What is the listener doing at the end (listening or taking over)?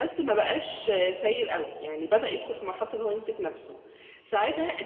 listening